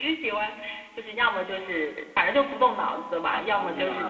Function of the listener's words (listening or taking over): listening